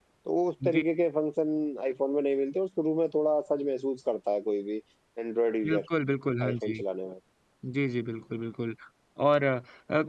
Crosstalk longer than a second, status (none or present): none